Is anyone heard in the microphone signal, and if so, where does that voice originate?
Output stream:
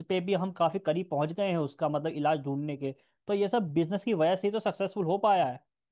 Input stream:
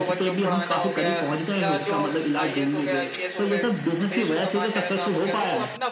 both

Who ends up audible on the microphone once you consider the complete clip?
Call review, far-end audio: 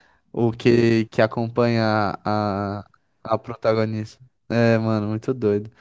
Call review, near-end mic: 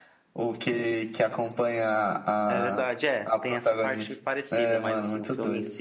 both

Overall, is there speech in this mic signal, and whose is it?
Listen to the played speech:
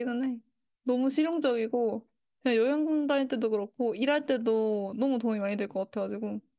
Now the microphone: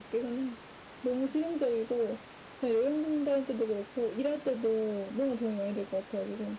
echo only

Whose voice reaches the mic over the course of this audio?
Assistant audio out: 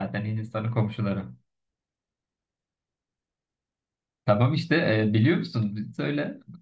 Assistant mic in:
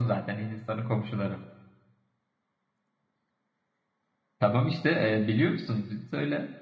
echo only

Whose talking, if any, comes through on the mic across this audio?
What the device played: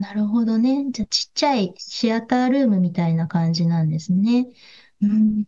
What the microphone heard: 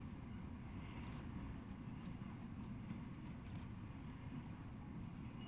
neither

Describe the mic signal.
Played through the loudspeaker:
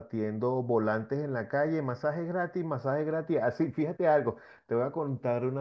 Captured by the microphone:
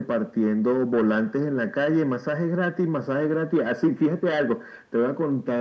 echo only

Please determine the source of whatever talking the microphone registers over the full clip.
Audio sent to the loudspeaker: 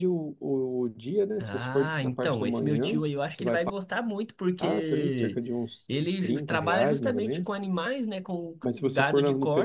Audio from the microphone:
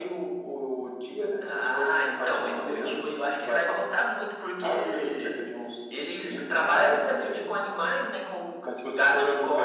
echo only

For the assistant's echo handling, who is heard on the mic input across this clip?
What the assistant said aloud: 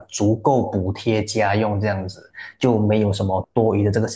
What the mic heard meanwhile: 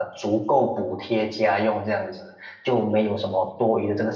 echo only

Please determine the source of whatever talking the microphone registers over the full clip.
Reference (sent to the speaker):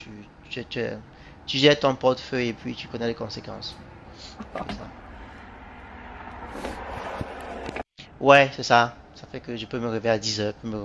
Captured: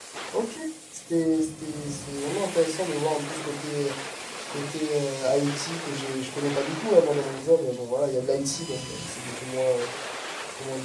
user only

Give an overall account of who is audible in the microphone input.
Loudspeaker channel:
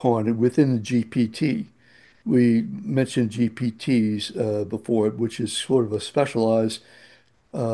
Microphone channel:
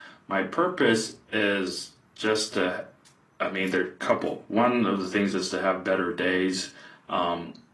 user only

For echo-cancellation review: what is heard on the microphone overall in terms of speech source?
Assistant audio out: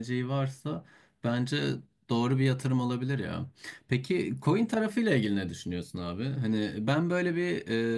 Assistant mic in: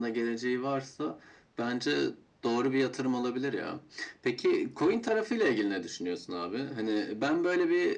echo only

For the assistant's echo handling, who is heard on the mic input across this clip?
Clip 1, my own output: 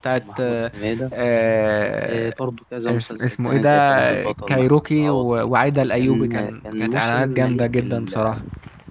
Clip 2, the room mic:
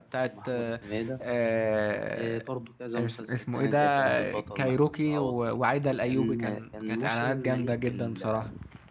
echo only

